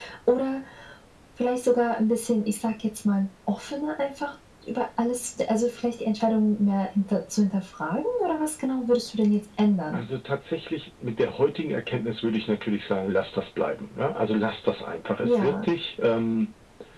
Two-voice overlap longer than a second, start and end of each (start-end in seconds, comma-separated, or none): none